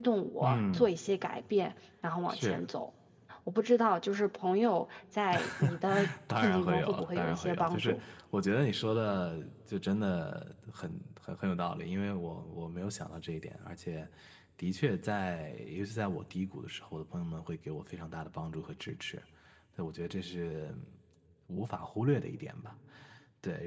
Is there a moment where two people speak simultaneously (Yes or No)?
Yes